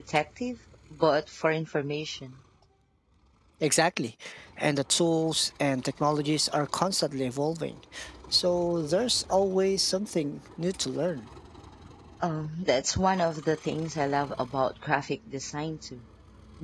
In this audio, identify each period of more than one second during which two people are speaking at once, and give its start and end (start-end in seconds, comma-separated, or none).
none